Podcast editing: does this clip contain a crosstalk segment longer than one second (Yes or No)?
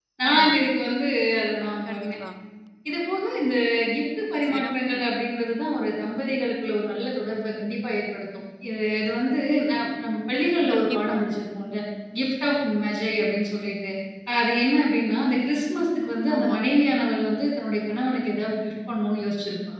No